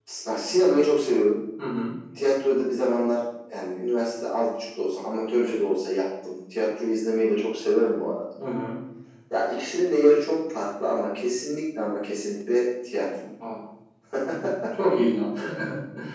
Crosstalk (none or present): none